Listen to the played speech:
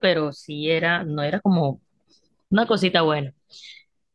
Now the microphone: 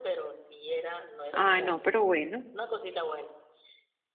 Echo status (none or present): present